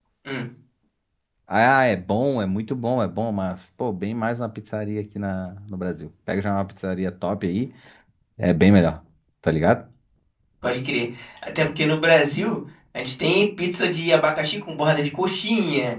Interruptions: none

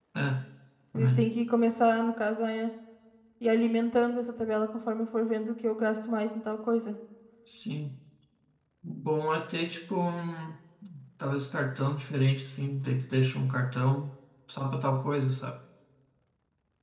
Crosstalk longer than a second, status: none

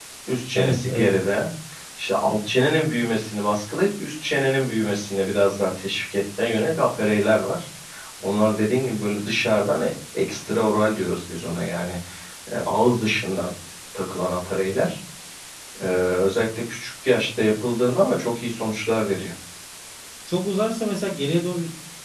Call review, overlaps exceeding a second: none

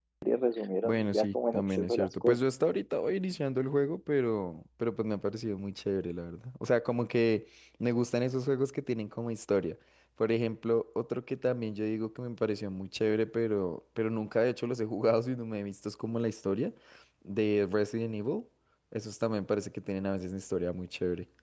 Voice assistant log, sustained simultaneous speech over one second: present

